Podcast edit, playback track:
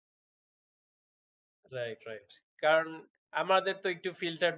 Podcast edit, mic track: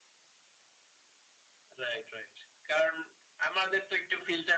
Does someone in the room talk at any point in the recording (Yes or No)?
No